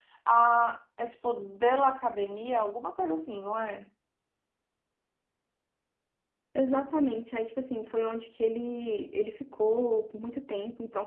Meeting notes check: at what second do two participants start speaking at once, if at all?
none

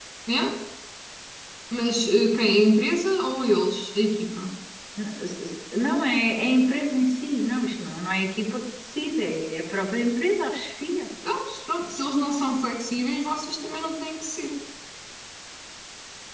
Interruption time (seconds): none

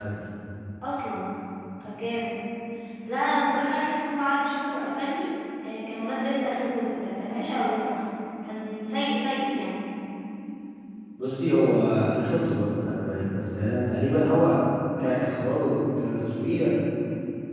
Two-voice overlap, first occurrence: none

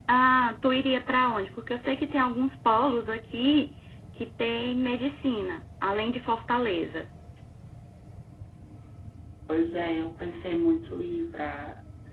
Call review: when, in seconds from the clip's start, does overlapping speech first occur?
none

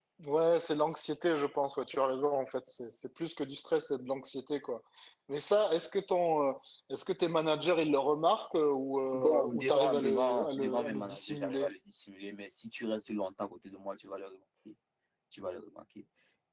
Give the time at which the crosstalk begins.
9 s

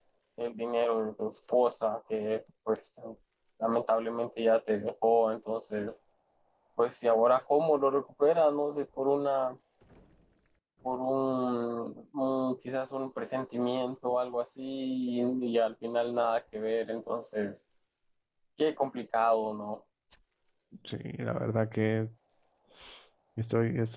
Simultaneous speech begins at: none

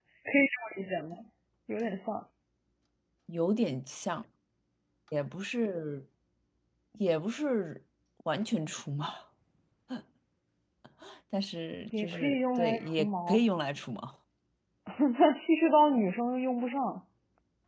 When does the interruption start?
12 s

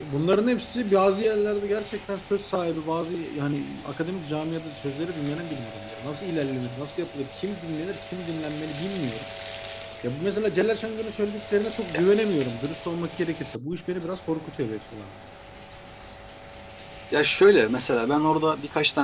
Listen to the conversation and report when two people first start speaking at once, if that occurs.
none

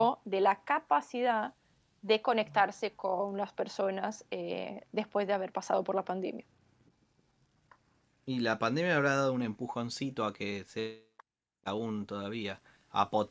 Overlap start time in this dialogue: none

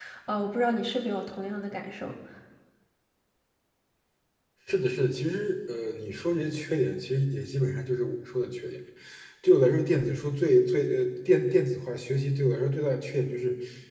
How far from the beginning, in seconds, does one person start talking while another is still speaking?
none

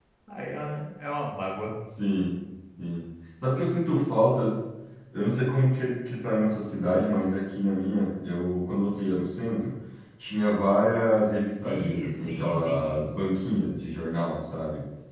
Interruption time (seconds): 12 s

